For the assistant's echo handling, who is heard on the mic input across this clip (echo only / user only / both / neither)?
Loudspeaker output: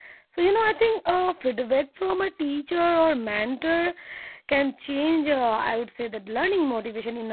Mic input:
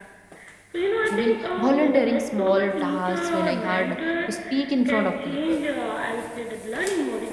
both